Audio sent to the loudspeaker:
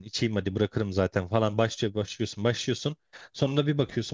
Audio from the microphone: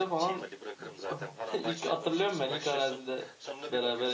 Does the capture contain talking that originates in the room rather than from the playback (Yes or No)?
Yes